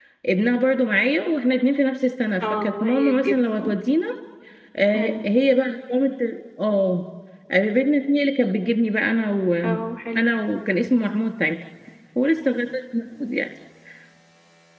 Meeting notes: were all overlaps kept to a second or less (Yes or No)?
No